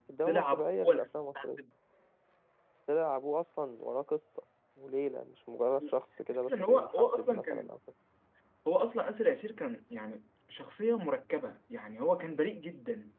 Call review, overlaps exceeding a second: present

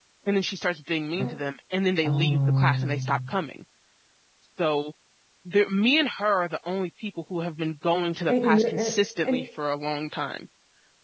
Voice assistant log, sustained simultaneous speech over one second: present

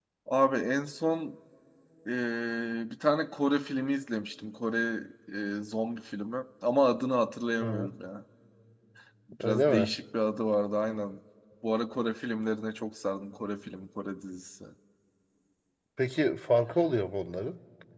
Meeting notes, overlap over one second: none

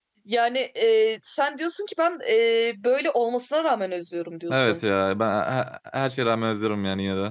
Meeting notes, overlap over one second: none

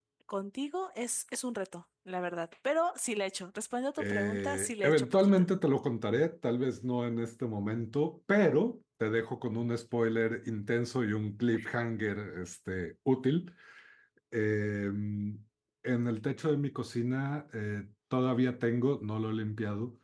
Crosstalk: present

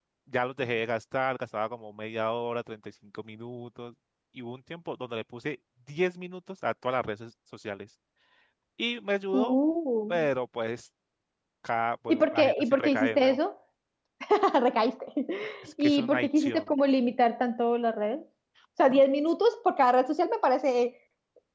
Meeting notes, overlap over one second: present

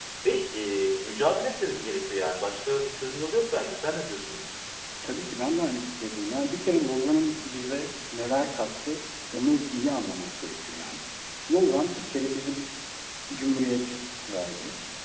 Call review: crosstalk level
none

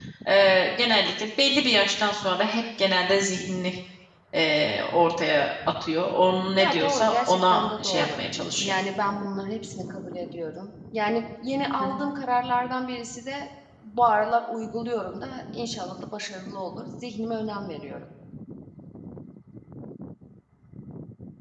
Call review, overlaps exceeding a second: present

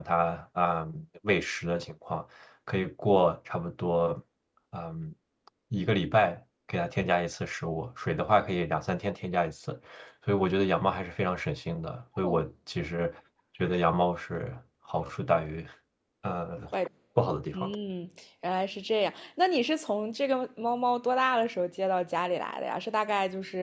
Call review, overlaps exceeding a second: none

